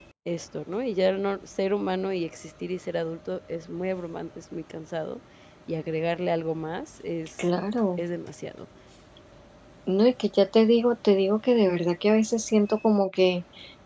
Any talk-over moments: No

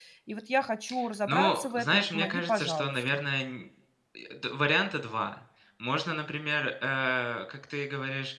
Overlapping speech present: Yes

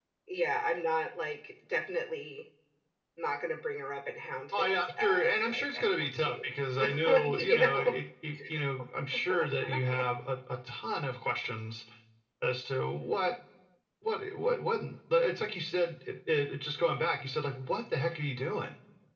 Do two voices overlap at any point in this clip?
Yes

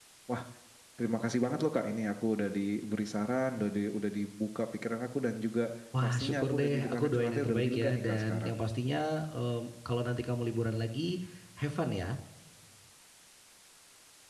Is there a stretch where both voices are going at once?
Yes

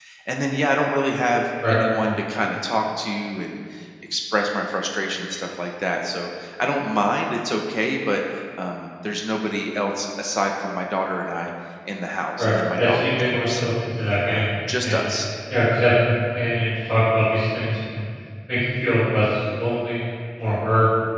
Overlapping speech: Yes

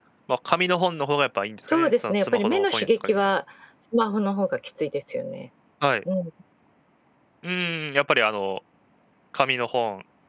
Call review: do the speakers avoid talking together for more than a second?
No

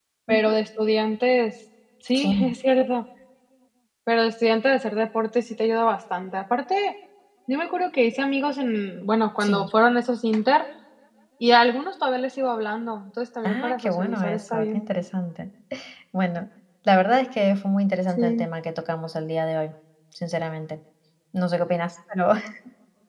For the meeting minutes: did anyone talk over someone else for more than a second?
Yes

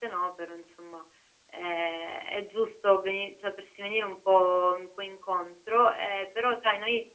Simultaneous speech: No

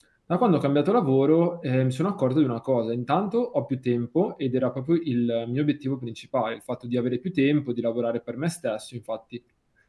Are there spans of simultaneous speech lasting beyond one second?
No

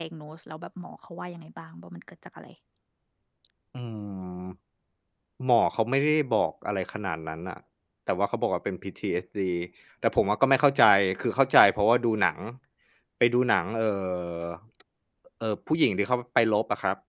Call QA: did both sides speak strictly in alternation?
Yes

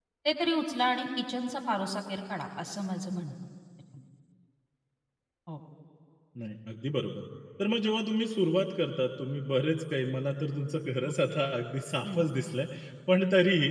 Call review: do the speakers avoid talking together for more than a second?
Yes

